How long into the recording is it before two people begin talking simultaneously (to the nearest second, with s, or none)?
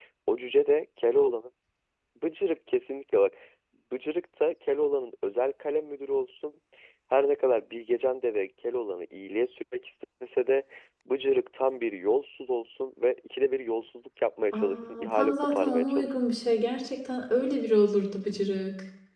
15 s